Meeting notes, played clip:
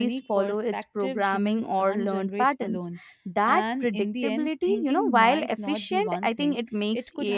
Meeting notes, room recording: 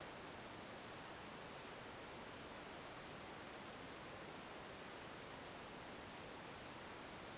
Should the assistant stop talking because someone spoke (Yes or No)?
No